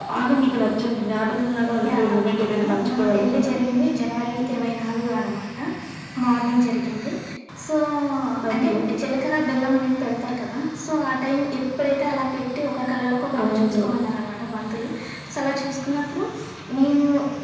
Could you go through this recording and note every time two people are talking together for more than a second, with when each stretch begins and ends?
1.8-3.5

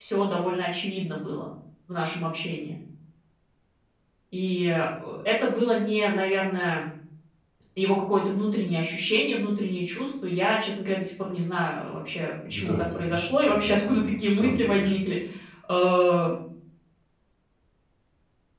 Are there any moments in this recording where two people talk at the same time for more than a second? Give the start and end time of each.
12.5-15.0

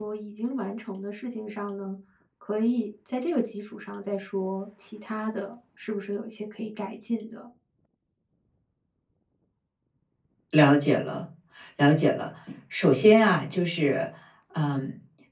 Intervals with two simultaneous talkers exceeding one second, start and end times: none

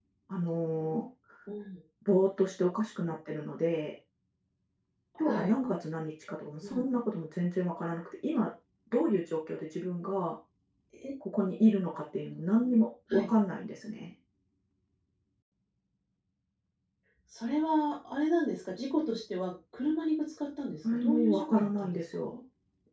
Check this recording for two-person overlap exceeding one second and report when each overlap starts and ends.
20.9-22.4

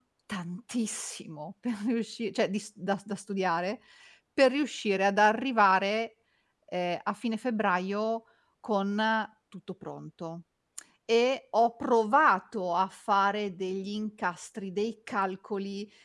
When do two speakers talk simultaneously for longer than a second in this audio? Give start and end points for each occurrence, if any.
none

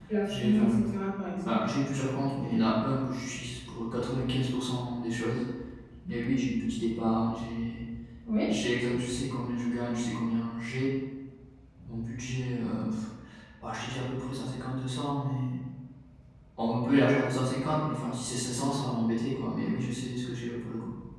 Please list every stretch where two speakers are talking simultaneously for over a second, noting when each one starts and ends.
none

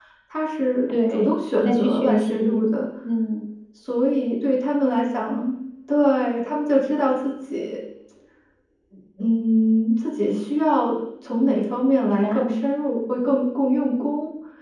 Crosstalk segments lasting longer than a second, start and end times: 1.1-2.6

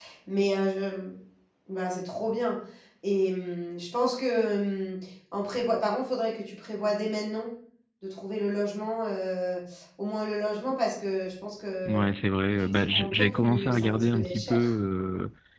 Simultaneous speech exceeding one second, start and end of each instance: 12.5-14.7

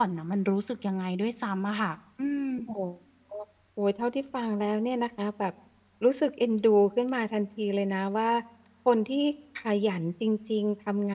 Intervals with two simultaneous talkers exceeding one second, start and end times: none

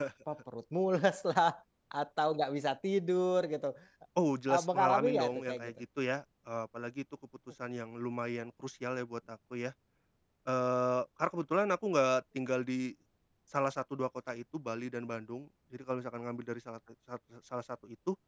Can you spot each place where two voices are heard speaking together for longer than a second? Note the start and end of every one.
4.5-5.7

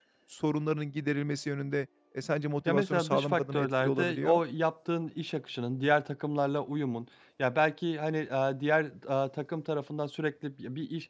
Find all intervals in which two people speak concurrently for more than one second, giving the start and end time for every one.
2.6-4.4

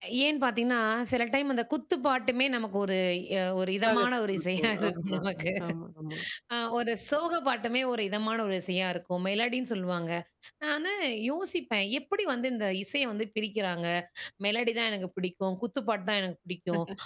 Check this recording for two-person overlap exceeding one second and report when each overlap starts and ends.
3.8-5.2

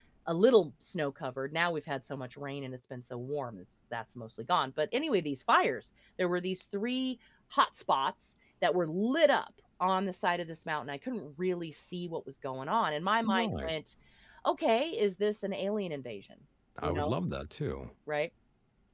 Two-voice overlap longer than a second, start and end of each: none

